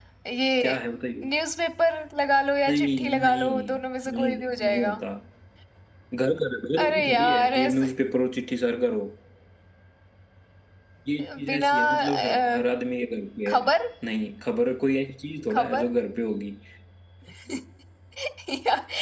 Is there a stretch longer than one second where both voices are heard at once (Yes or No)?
Yes